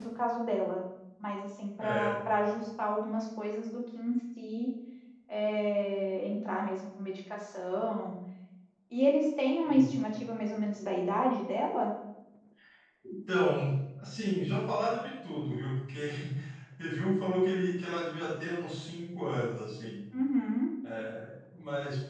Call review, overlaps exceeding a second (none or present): none